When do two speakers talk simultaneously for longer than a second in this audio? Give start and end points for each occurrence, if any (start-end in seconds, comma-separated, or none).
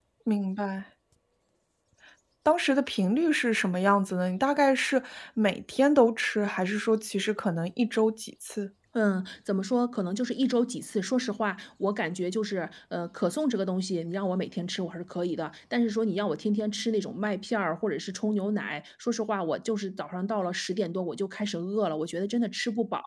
none